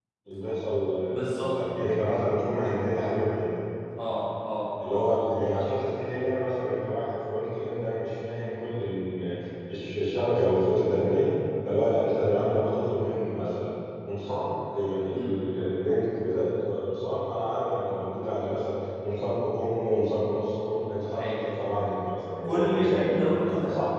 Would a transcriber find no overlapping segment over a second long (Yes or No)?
No